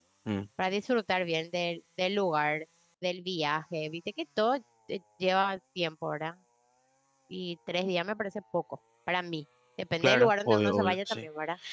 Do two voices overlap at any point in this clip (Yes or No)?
Yes